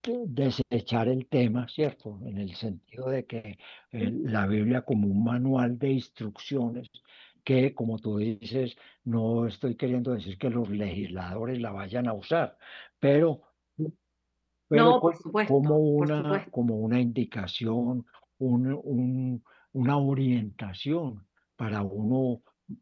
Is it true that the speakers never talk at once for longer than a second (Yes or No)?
No